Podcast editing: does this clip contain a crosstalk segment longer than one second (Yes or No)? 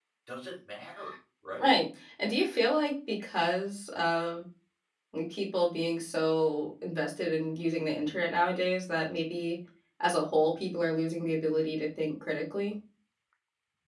No